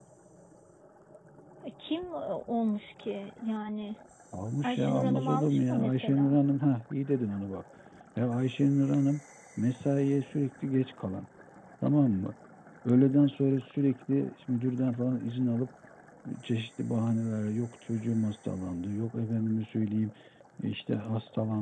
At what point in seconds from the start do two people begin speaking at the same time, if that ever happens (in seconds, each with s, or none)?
4.6 s